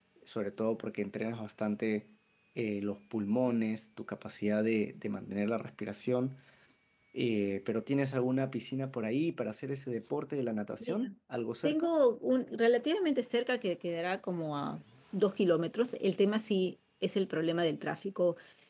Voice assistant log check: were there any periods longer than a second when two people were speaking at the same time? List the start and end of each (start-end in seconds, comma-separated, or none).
none